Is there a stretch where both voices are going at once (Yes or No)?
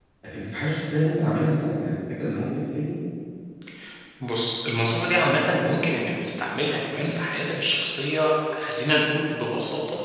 No